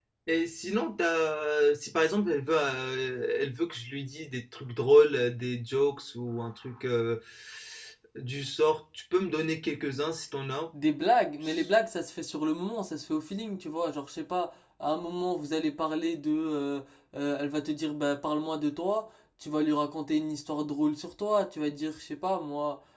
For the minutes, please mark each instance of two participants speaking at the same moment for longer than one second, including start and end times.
none

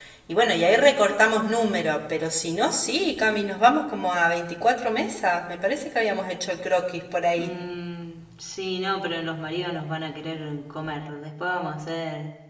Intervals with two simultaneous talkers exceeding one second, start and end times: none

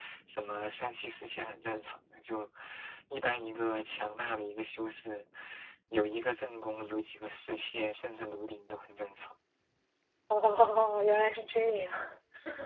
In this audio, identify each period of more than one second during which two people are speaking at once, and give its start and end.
none

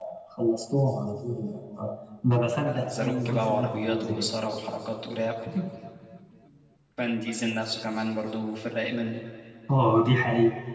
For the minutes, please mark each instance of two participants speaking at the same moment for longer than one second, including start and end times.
2.6-4.3

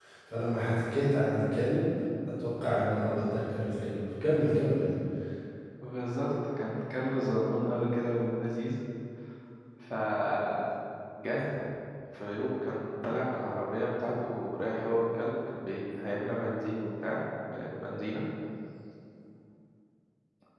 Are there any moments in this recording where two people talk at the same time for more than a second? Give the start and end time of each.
none

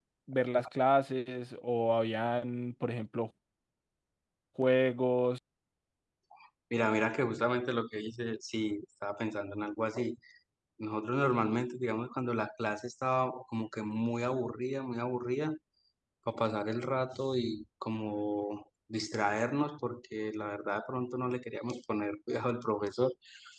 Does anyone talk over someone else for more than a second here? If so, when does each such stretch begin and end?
none

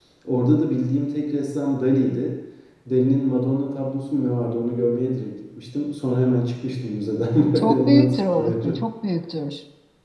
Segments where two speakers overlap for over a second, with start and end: 7.5-8.8

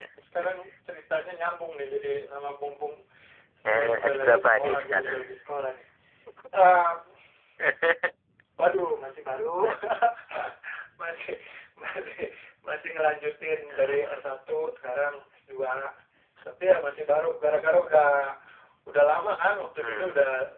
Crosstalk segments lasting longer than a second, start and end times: 3.7-5.1

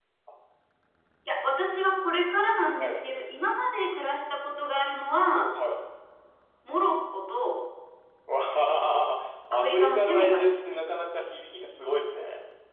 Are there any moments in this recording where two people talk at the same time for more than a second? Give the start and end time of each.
9.5-10.8

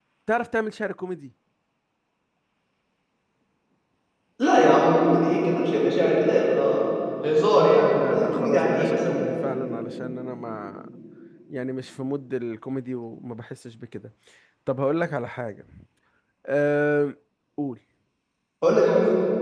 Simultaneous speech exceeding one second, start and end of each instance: 7.8-9.3

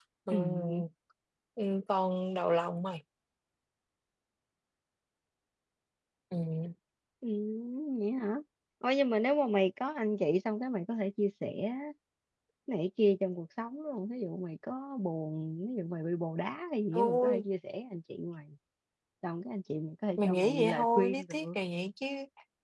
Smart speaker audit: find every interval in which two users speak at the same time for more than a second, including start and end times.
20.2-21.5

